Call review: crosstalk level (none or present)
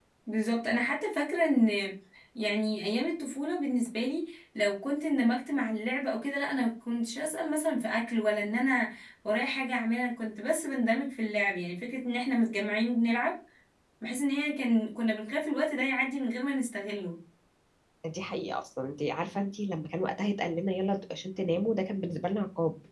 none